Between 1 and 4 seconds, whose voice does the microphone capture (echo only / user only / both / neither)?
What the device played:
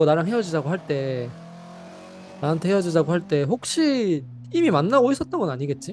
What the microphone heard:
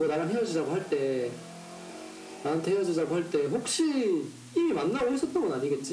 echo only